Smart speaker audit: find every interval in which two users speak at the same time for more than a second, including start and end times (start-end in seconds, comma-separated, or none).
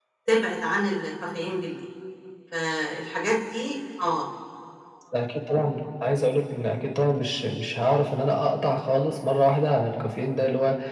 none